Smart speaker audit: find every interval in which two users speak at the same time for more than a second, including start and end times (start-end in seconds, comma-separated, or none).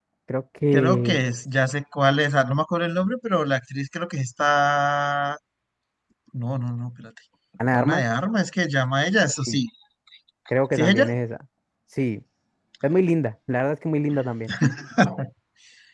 none